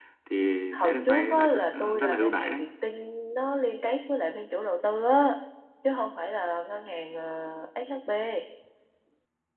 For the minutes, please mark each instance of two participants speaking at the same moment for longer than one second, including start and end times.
0.7-2.6

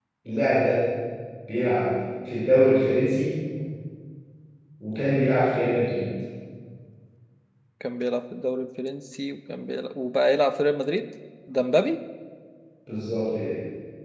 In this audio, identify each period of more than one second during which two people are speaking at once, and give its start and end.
none

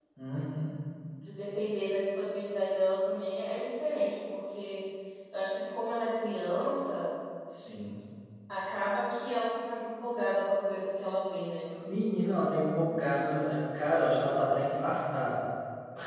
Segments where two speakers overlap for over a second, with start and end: none

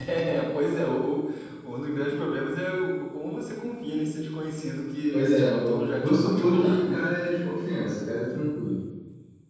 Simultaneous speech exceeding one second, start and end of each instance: 5.1-7.0

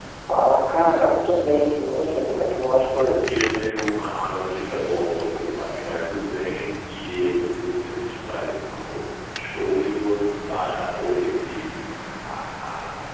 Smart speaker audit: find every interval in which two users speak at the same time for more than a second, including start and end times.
none

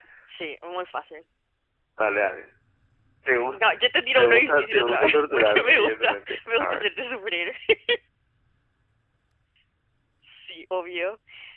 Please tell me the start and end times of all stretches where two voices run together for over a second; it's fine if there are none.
4.1-6.9

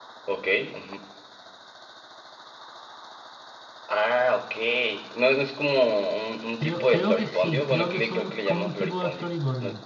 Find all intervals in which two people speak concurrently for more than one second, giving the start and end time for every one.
6.6-9.2

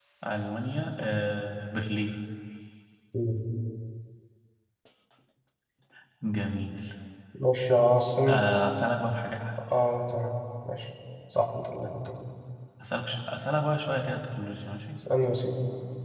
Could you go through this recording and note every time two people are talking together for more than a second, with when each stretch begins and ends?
none

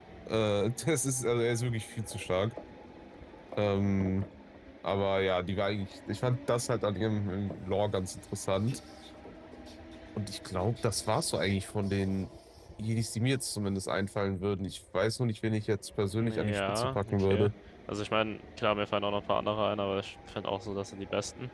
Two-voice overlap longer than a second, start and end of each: 16.2-17.5

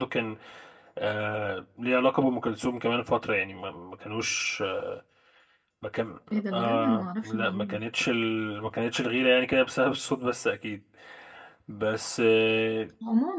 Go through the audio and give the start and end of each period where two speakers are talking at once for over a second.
6.3-7.8

